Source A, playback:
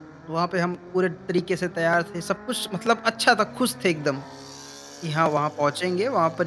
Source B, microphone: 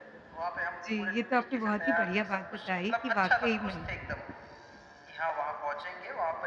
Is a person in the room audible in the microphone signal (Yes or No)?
Yes